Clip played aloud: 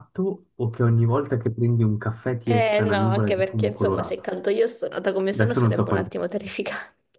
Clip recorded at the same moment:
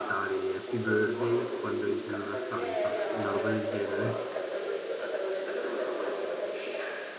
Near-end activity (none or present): present